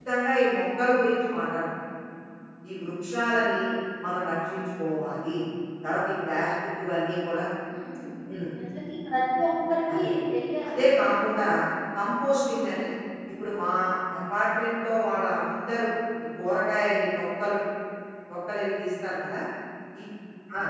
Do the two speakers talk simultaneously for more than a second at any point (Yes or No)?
No